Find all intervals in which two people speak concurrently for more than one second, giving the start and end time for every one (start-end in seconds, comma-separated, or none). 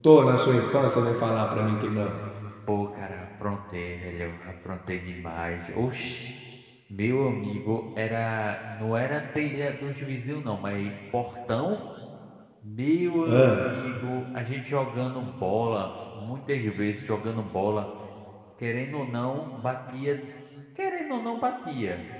none